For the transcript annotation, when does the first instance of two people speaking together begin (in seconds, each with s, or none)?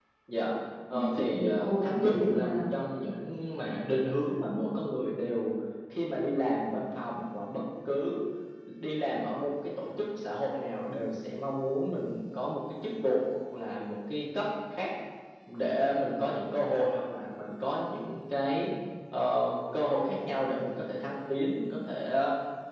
0.9 s